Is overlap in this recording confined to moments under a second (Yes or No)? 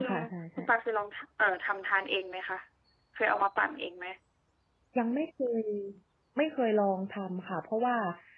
Yes